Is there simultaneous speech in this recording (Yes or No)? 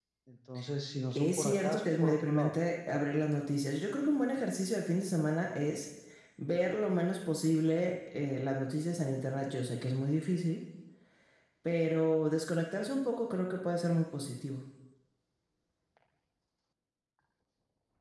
Yes